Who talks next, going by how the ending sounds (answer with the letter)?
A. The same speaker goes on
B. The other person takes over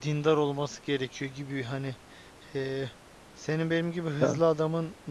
A